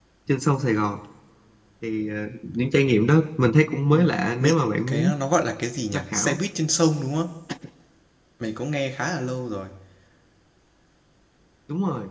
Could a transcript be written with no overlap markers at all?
No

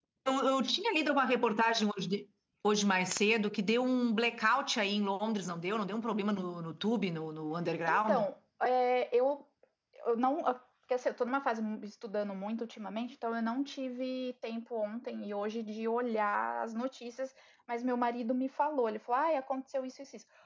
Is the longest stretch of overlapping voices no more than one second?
Yes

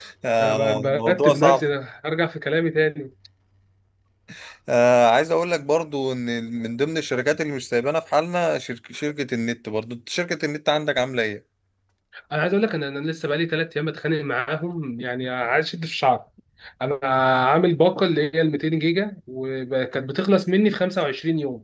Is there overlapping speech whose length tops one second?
Yes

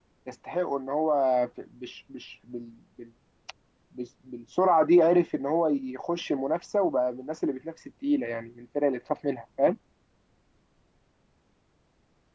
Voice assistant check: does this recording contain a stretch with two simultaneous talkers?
No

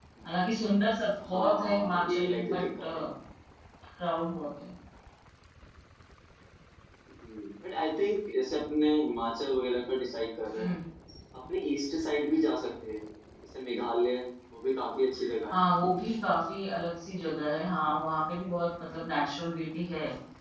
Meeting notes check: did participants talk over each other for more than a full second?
Yes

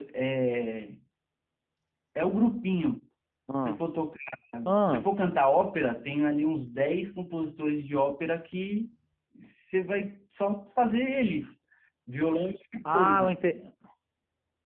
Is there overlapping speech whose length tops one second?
No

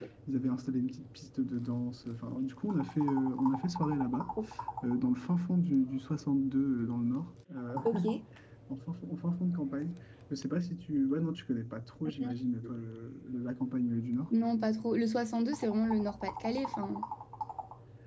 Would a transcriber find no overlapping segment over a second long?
Yes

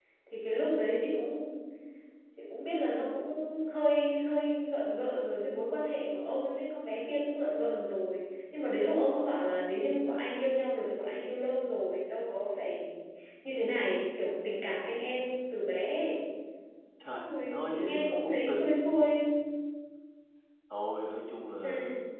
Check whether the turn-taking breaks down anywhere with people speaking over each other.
Yes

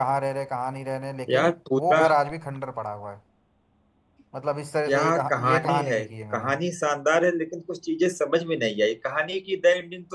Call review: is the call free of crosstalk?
No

